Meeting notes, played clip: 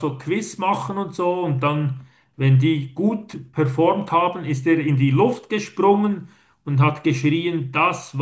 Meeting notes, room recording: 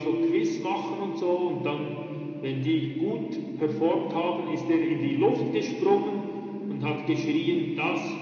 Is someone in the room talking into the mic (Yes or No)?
No